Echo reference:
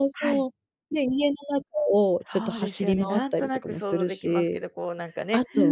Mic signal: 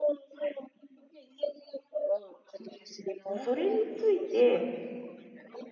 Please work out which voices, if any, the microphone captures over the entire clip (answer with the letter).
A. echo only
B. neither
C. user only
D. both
D